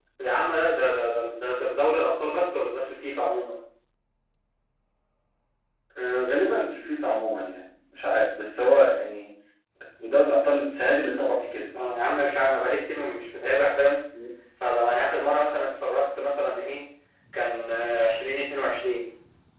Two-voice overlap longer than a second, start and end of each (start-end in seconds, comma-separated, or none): none